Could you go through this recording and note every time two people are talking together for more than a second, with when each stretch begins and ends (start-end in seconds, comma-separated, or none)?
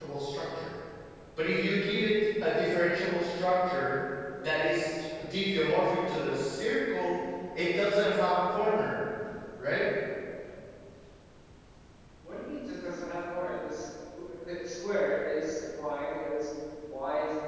none